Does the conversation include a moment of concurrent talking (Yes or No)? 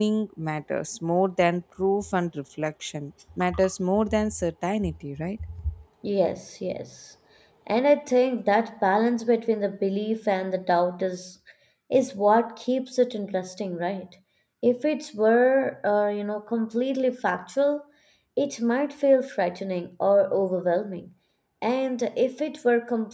No